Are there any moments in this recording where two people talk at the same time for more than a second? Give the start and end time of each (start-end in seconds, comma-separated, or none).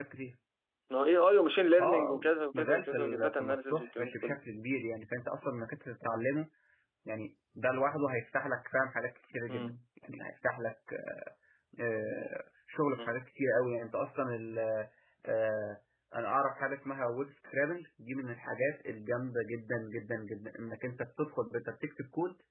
1.8-4.3